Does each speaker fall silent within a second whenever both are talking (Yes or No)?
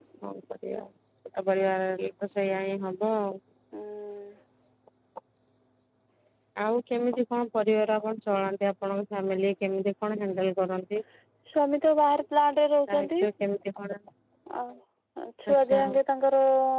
Yes